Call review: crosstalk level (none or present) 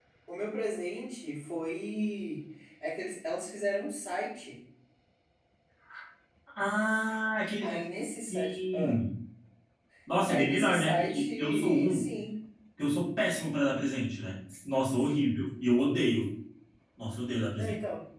present